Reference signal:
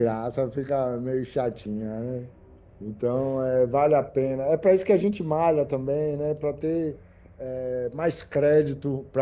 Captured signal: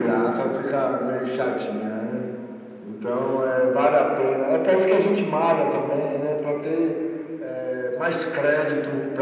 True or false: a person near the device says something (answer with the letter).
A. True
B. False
B